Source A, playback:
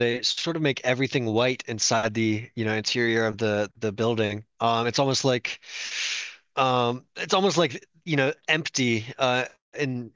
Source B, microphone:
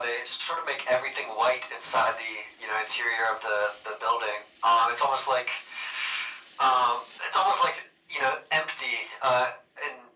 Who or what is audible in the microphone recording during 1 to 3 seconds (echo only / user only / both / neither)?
echo only